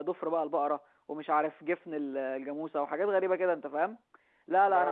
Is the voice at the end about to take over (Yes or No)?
No